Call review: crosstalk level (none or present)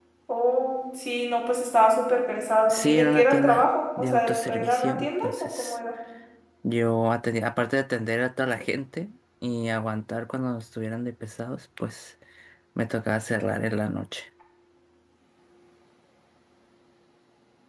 present